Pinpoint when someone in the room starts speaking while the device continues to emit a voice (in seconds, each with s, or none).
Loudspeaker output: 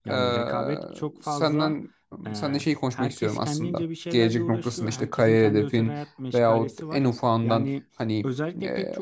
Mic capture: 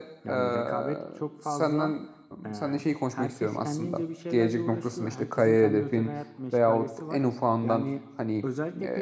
none